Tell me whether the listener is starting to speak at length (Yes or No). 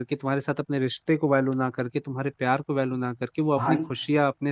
No